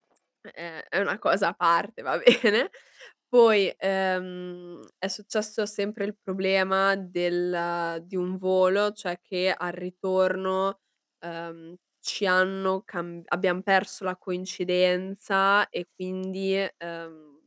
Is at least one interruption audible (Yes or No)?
No